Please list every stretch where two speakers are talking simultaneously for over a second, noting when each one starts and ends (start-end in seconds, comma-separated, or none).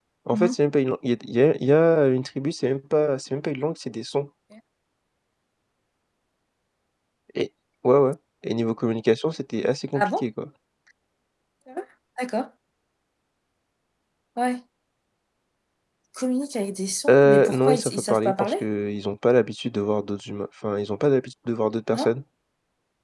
17.1-18.6